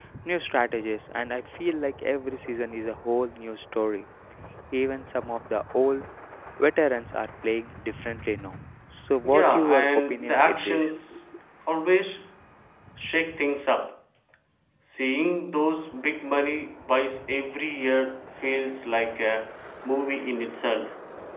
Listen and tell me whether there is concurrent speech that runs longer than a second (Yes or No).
Yes